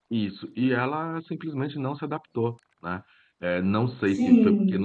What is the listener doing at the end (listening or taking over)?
listening